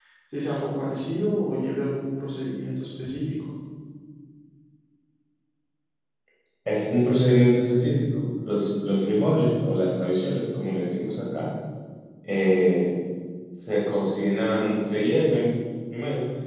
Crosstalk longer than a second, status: none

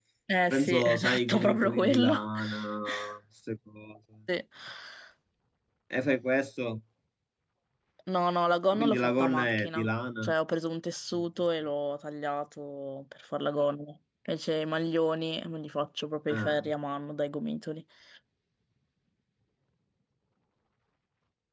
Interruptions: present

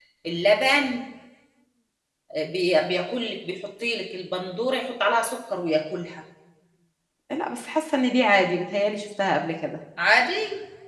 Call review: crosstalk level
none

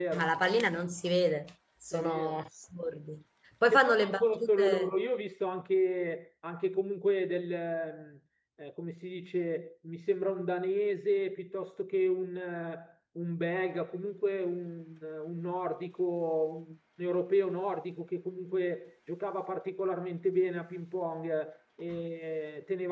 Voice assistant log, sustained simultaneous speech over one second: present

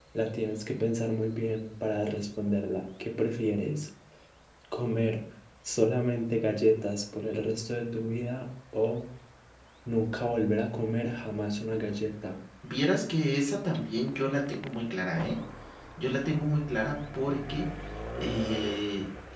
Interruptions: none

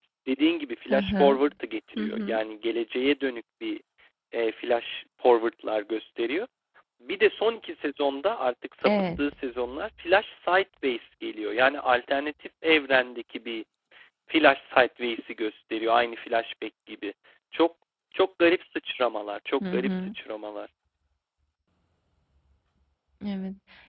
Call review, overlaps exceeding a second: none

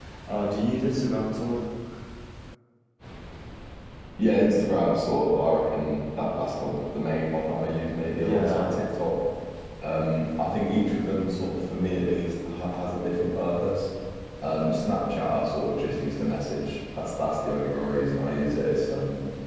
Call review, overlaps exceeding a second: none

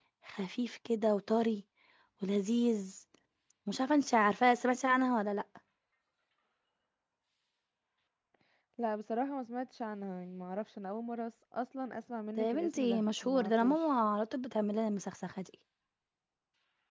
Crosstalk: present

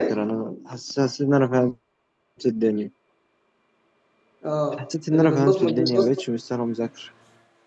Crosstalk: present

